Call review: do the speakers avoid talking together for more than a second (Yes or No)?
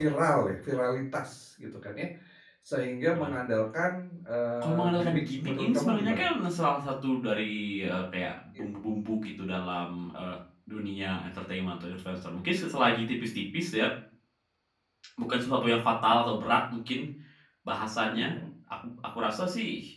No